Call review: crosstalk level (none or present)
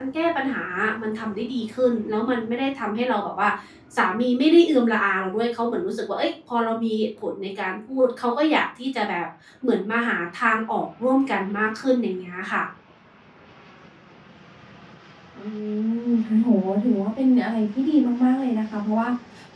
none